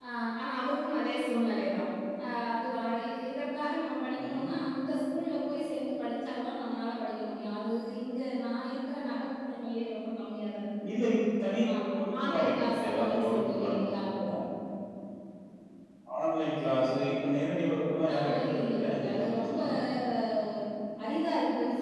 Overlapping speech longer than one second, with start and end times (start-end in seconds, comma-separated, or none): 12.2-13.9, 18.1-19.6